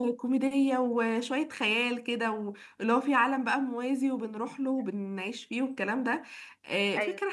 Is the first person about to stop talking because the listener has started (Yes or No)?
No